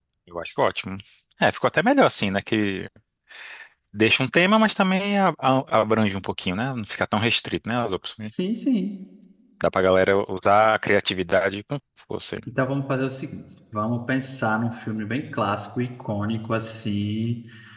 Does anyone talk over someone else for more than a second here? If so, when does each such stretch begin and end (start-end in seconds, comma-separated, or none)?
none